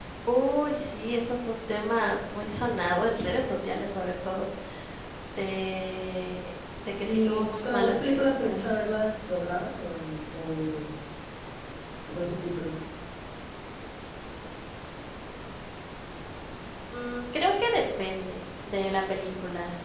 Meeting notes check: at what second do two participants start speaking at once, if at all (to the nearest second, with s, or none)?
7 s